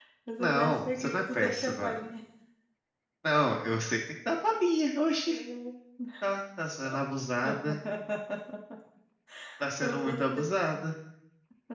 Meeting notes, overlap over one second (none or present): present